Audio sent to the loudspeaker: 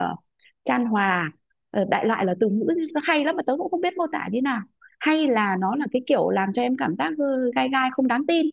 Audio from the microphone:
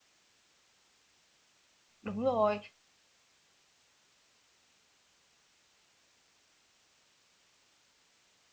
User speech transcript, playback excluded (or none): đúng rồi